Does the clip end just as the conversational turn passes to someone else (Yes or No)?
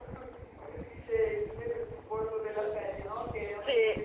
No